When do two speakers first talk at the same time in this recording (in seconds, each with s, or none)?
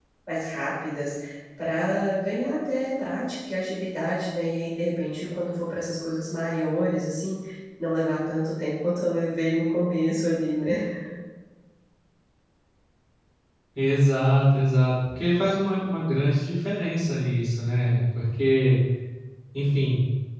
none